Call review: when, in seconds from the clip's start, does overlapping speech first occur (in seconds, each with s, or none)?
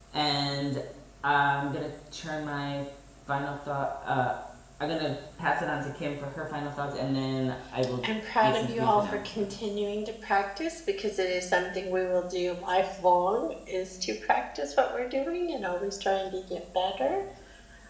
8.4 s